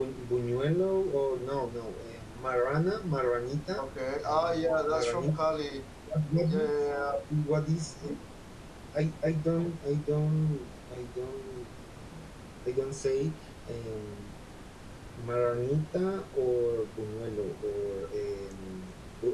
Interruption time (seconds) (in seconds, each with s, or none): 4.2 s